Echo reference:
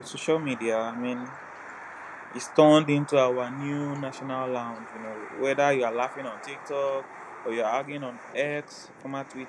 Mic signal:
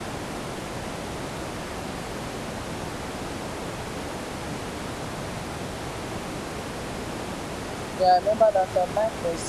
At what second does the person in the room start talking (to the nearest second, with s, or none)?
8 s